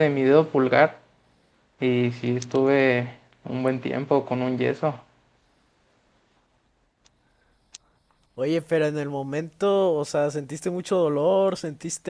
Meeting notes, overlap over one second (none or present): none